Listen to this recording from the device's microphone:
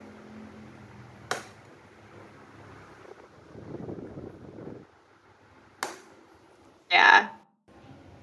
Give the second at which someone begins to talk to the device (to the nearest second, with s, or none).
7 s